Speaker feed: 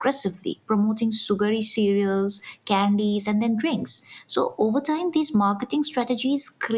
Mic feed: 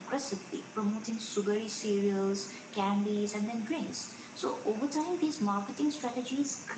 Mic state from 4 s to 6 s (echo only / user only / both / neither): echo only